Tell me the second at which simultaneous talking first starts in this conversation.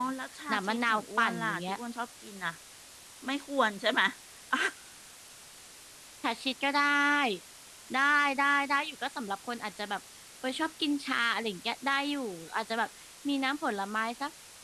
0.5 s

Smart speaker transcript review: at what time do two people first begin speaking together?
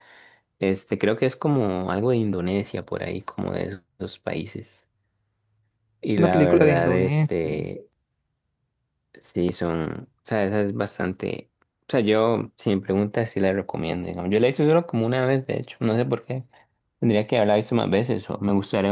6.0 s

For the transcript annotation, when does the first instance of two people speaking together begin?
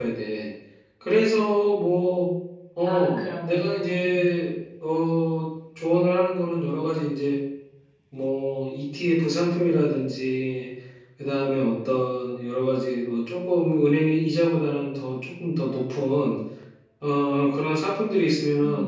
2.8 s

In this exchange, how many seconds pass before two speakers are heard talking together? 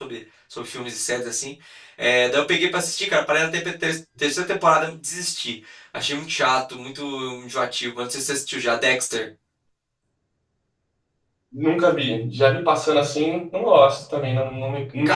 none

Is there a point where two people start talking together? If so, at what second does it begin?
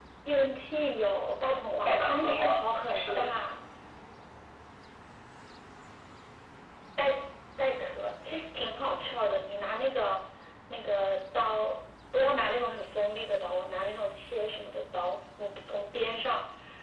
1.9 s

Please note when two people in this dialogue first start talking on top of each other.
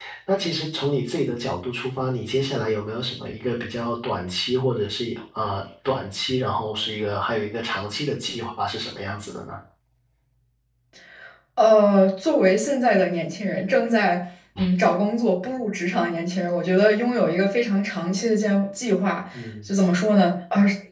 none

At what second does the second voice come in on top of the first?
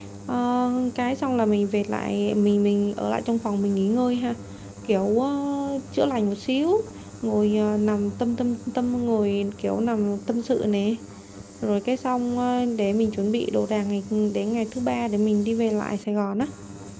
none

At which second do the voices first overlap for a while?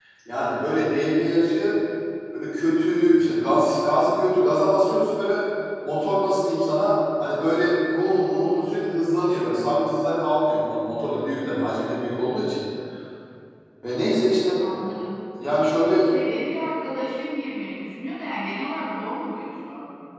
none

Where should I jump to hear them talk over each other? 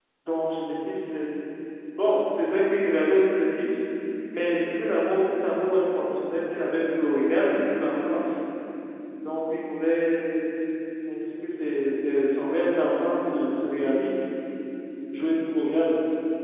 none

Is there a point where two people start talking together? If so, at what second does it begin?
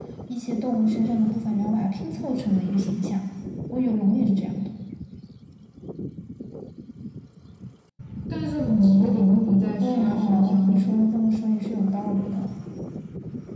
8.7 s

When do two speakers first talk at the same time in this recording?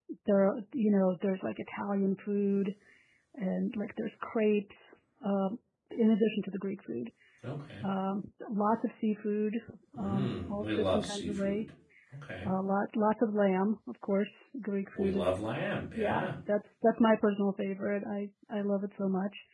10.0 s

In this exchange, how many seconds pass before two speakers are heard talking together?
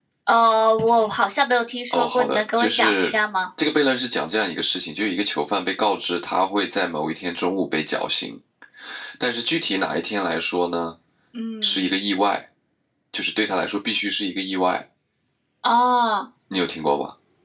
1.9 s

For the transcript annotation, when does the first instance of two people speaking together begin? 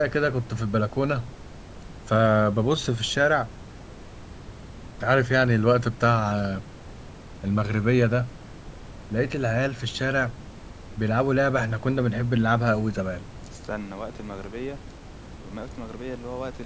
none

